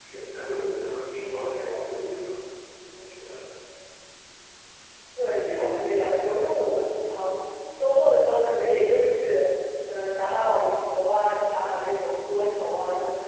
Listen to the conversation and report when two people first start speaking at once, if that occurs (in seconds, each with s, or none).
none